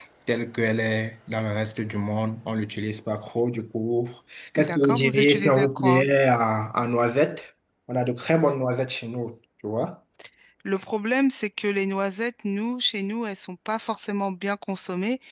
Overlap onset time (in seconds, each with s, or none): 4.6 s